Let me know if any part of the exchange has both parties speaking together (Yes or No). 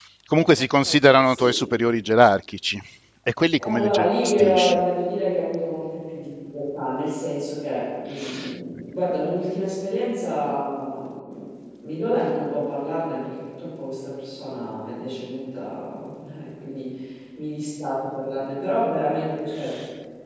Yes